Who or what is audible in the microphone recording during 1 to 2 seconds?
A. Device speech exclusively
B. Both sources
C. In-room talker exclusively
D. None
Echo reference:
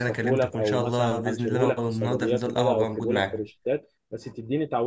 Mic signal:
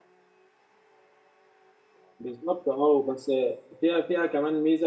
D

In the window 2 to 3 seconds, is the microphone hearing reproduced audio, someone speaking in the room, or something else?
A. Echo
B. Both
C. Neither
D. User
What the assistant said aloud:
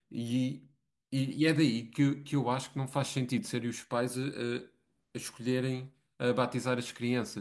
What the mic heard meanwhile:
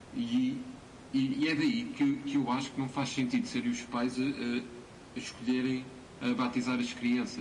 A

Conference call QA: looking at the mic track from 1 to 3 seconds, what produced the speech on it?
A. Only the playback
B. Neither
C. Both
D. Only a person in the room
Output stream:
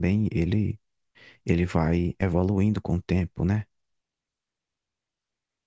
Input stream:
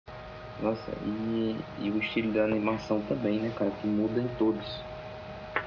D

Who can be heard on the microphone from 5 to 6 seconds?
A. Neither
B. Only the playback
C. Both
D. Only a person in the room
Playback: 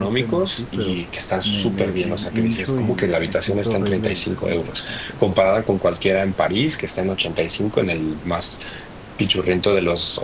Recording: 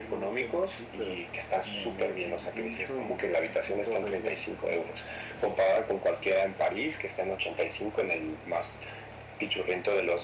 B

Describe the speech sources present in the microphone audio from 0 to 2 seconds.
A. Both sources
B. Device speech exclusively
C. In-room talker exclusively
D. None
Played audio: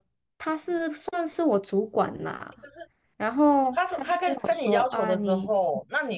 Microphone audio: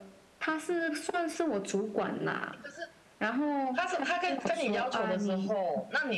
B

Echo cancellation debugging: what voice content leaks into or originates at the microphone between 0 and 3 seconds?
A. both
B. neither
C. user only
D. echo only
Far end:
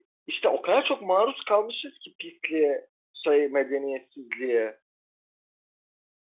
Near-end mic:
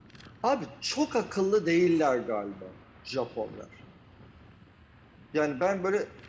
C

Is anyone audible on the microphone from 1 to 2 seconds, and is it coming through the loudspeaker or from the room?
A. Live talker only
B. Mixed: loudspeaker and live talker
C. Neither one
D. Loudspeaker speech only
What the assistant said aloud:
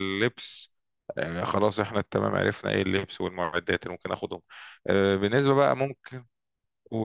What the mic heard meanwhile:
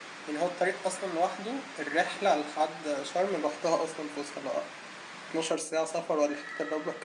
A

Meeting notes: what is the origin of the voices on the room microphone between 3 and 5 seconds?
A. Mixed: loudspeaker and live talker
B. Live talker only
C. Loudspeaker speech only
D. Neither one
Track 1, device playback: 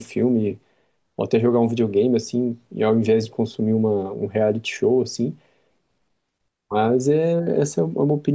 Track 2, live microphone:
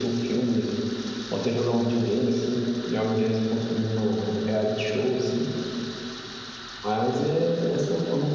C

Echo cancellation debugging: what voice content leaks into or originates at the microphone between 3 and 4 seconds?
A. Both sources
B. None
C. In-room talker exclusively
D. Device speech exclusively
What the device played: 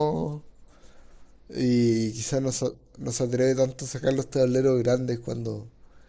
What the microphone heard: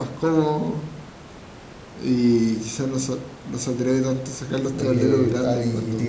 D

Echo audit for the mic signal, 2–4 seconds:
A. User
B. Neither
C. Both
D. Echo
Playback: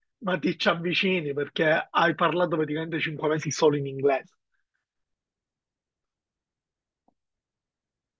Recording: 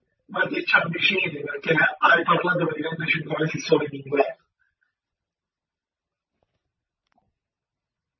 D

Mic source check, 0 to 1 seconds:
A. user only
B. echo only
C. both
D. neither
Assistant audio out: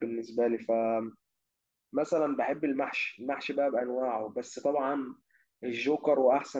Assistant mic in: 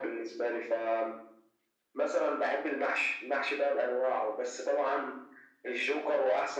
B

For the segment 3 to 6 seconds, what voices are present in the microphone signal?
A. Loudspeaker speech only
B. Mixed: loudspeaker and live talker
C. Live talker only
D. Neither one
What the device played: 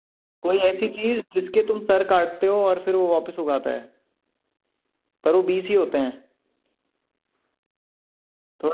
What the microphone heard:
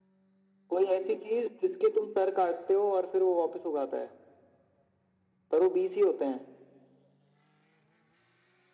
A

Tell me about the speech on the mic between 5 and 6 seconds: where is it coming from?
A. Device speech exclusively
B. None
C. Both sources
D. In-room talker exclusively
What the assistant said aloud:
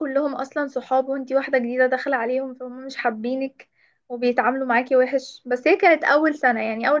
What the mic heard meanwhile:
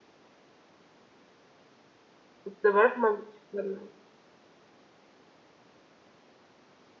B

